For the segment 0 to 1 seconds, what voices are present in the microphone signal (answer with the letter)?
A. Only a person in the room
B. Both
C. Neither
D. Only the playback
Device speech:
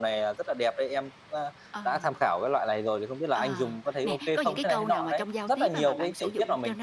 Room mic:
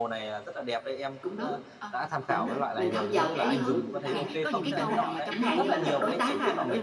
D